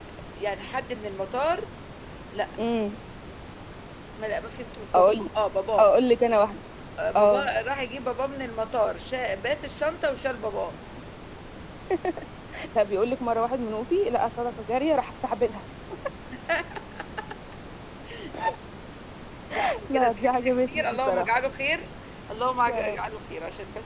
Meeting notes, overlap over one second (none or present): present